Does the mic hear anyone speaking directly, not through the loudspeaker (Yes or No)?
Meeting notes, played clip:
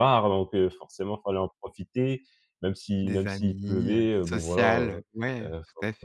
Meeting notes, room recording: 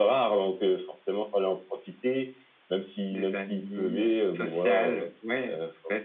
No